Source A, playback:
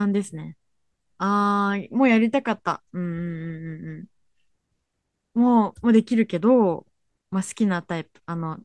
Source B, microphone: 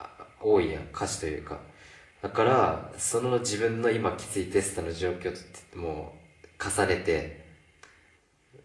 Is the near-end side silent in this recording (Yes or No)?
No